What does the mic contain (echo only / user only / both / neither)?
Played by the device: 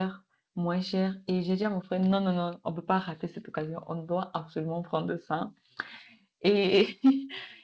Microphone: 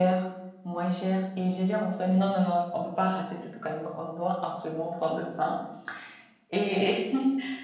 echo only